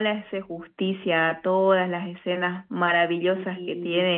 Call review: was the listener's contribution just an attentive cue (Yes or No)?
Yes